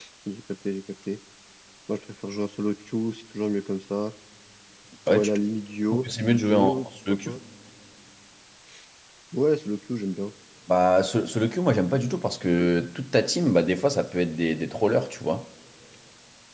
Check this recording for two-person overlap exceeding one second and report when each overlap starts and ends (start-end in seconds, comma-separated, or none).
5.9-7.3